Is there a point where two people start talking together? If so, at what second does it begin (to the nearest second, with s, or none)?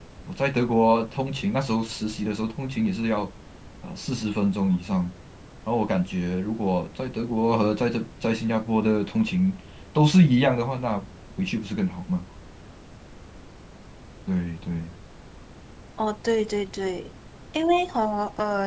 none